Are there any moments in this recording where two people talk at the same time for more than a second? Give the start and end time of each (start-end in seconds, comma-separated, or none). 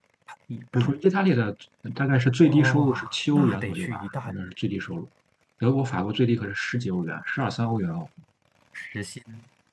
2.4-4.3